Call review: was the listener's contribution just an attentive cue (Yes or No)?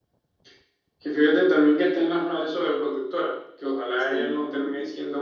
Yes